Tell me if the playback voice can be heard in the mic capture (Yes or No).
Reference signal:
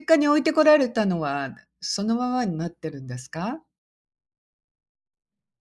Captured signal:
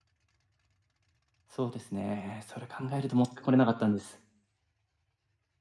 No